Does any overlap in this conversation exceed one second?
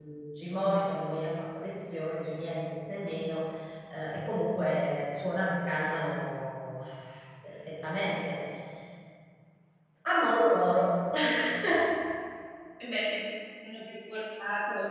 No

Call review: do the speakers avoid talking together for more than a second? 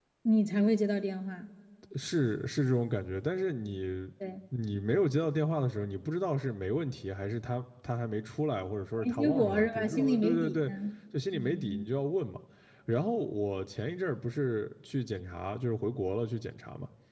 No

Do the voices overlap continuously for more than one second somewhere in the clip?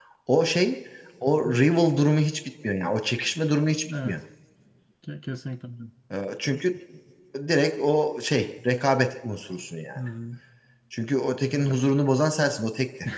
No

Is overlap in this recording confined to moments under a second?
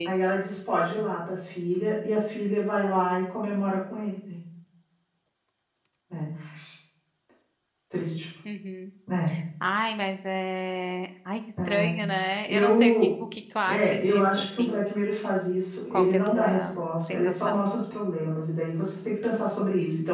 No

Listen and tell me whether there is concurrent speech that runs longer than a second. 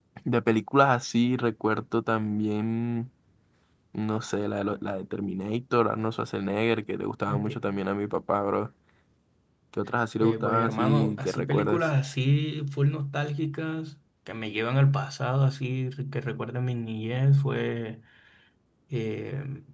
Yes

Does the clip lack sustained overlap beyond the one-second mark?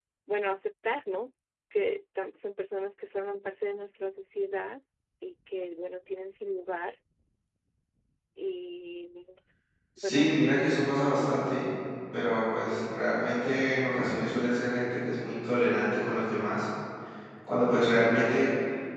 No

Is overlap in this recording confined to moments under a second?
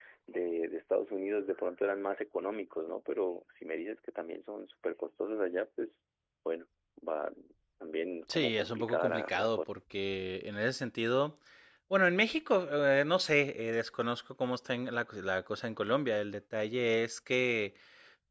No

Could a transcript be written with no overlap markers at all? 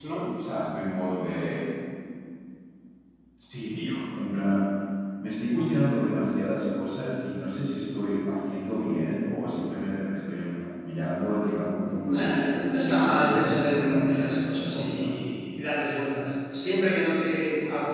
No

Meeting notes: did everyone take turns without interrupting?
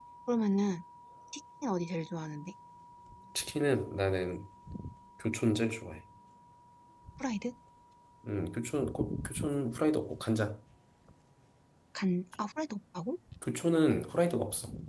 Yes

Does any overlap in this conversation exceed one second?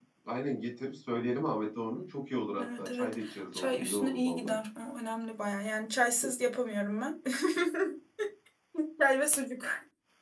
Yes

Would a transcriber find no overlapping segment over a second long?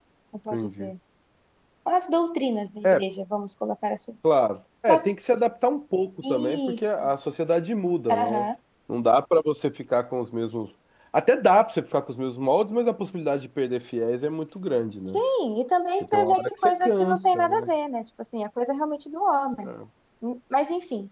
No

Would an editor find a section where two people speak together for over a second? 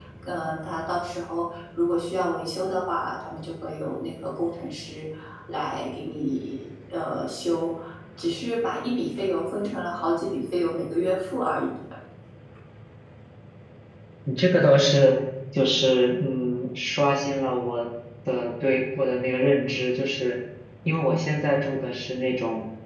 No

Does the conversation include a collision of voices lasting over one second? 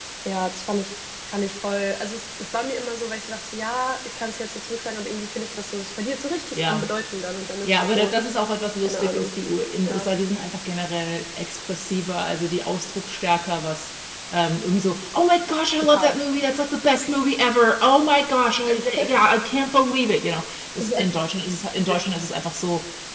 No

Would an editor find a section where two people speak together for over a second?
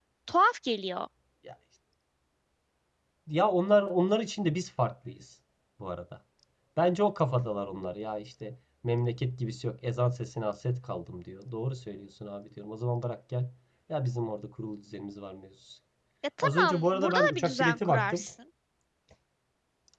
Yes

